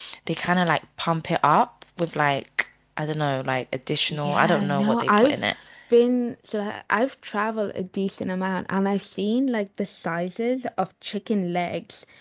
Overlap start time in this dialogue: 4 s

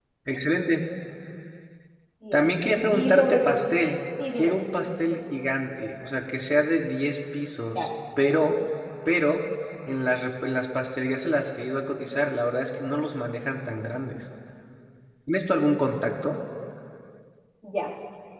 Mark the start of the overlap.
2 s

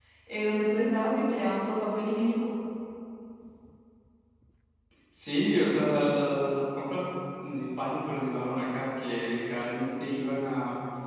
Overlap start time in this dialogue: none

